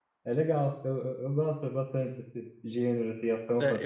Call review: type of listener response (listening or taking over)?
taking over